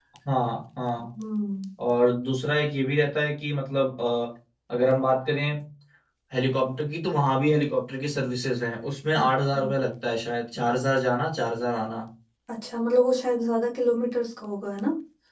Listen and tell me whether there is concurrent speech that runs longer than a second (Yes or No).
No